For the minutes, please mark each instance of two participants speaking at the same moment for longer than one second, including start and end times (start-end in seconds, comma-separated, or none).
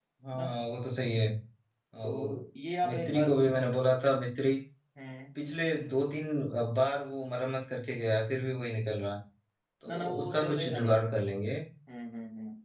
9.9-11.1